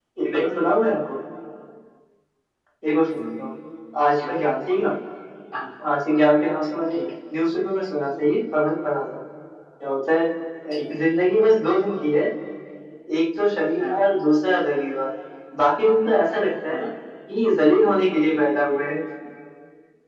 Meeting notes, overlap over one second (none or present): none